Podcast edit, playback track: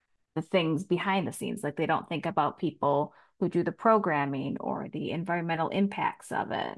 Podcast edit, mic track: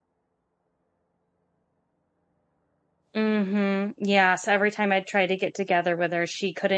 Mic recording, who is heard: user only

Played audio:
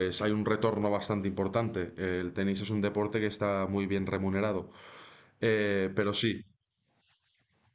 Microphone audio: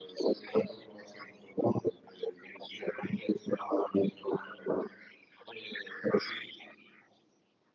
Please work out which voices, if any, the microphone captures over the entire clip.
echo only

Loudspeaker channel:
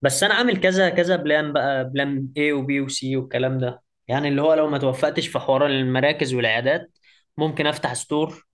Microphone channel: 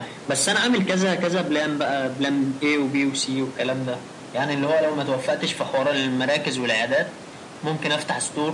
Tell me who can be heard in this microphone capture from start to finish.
echo only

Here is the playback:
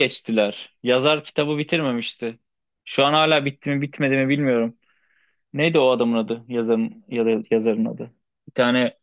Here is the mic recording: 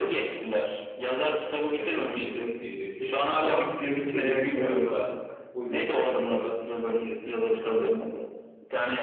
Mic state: both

